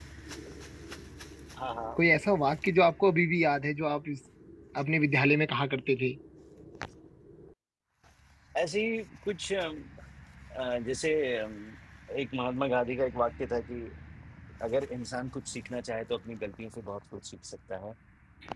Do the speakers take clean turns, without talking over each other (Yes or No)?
Yes